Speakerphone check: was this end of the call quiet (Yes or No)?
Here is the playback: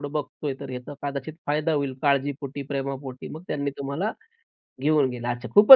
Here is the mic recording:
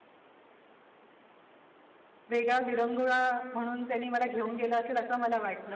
No